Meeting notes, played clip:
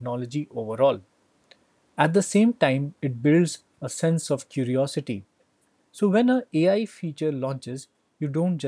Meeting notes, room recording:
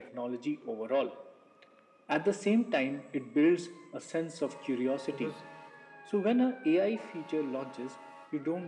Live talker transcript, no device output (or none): Because